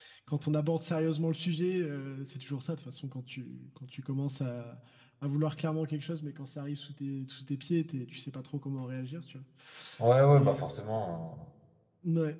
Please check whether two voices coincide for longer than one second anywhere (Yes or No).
No